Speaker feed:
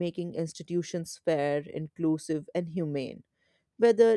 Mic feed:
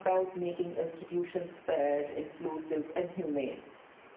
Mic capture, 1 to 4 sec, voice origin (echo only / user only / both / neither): echo only